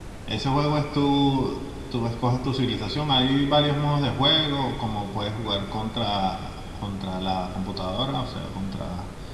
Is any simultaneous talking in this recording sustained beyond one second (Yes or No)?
No